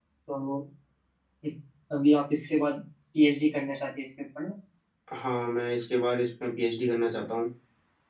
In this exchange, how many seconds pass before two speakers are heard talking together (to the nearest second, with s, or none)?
none